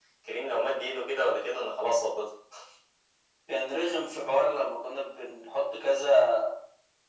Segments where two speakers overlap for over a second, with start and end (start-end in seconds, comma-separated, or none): none